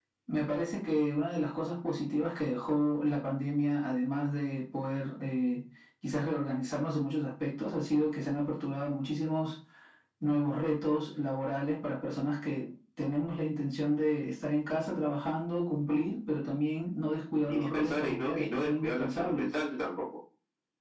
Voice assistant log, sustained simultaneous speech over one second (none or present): present